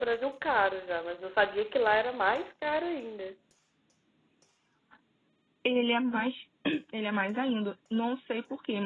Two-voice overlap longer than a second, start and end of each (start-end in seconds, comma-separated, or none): none